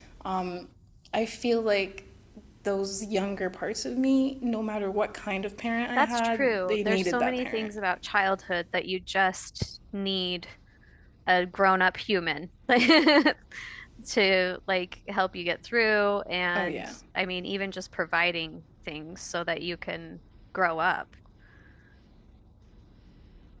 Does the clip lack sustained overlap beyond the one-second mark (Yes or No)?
No